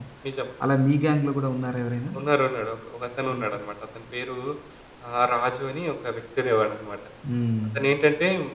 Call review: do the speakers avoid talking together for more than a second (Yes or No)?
Yes